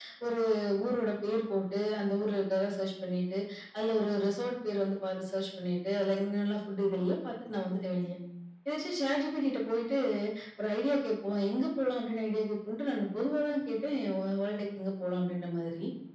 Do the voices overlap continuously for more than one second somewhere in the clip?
No

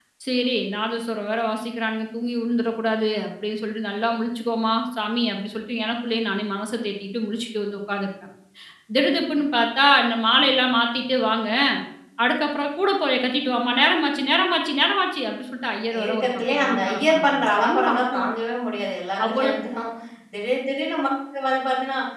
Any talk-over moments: Yes, from 16.0 s

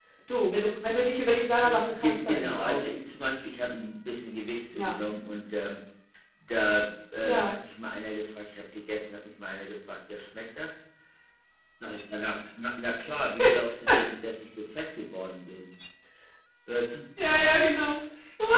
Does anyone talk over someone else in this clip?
Yes, from 1.6 s

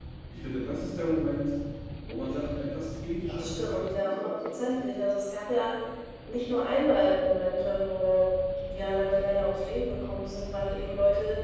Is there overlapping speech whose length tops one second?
Yes, from 3.3 s

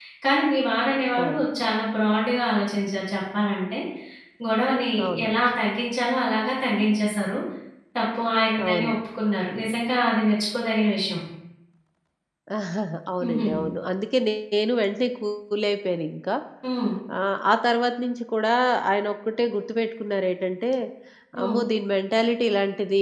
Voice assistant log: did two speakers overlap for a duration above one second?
No

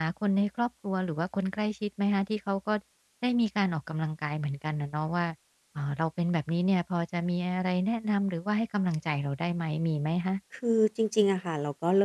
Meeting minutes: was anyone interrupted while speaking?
No

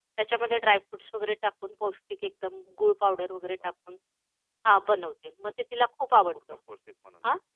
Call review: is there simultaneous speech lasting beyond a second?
No

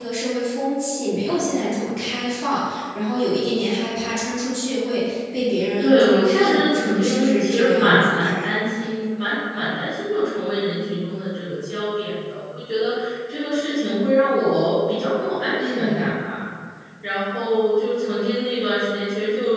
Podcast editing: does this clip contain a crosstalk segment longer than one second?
Yes, from 5.8 s

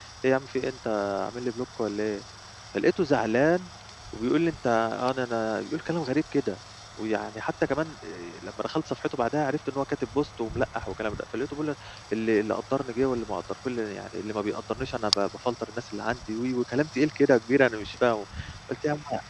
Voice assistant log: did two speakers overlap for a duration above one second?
No

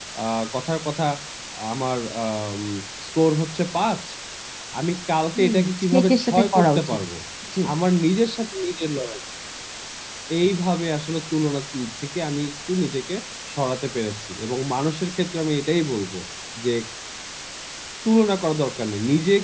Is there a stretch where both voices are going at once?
Yes, from 5.4 s

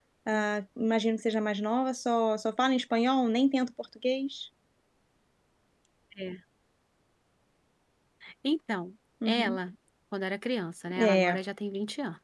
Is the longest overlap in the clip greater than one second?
No

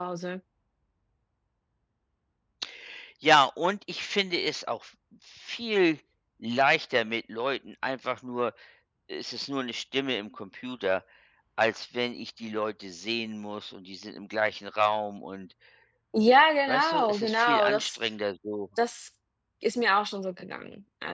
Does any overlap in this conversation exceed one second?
Yes, from 16.7 s

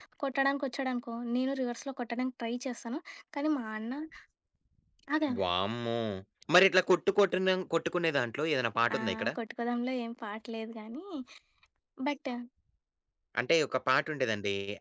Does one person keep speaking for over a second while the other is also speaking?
No

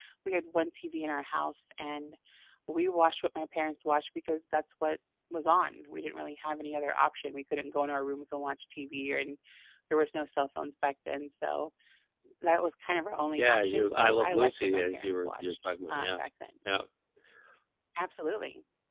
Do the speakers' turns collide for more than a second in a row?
Yes, from 13.4 s

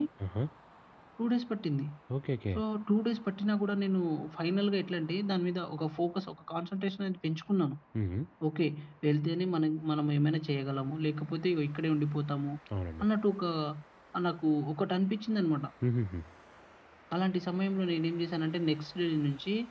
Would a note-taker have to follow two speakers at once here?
No

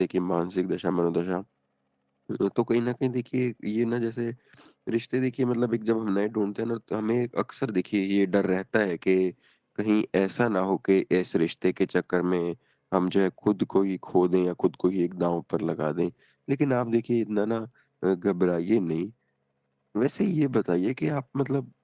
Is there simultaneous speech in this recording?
No

